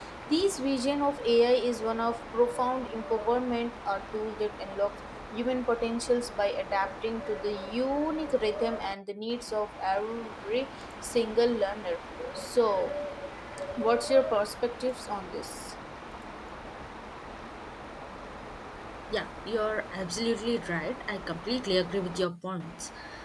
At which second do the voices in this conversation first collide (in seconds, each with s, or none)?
none